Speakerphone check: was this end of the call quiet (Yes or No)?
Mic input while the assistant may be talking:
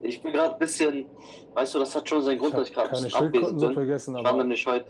No